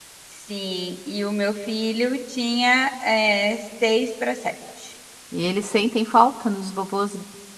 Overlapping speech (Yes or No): No